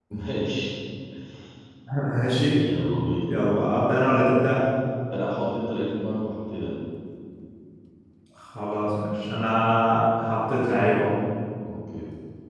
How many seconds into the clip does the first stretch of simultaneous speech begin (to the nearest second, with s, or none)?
none